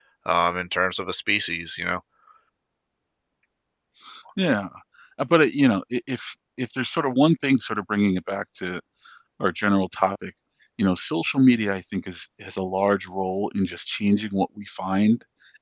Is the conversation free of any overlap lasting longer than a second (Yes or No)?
Yes